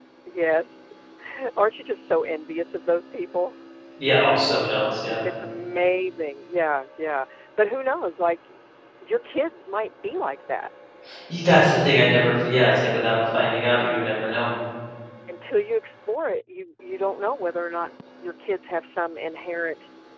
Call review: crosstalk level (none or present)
none